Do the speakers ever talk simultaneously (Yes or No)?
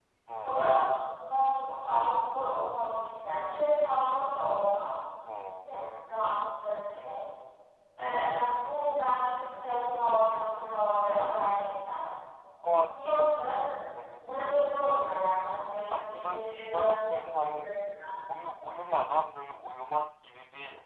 Yes